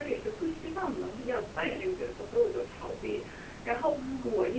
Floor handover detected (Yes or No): No